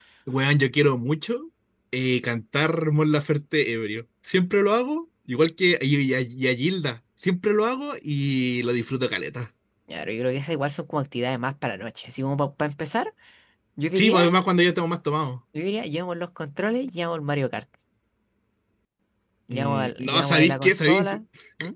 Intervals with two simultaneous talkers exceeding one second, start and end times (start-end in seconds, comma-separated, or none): 19.5-21.1